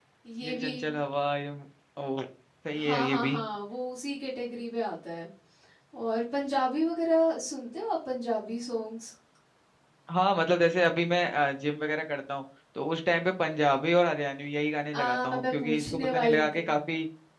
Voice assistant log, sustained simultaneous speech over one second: present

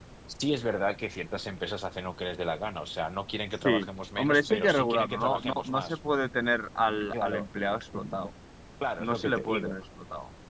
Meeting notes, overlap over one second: present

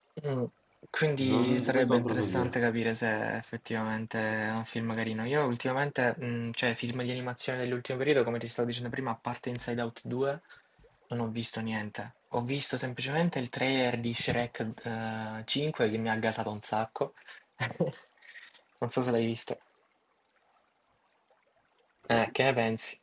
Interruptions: present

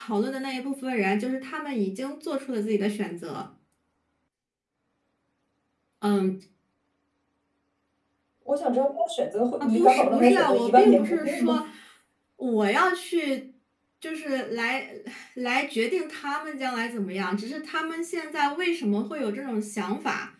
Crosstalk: present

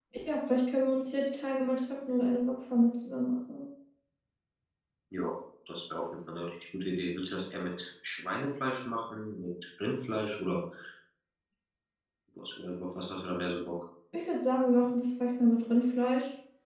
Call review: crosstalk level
none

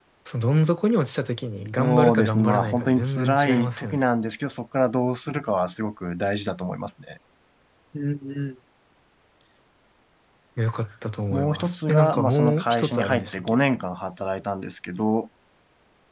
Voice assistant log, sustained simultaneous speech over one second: present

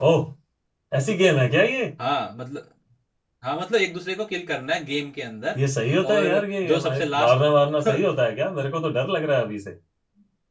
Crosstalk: present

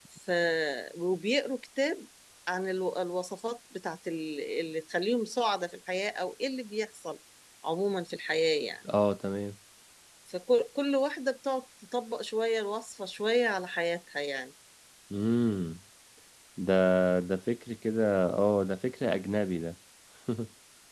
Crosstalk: none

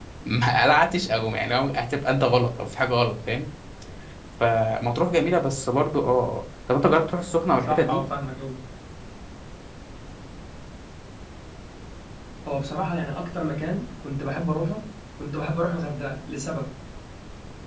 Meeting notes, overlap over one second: none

